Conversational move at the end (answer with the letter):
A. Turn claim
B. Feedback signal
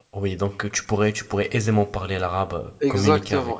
A